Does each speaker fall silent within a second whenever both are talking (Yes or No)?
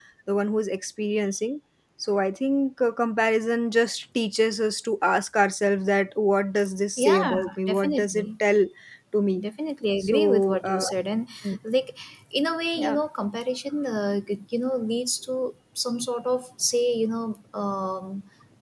No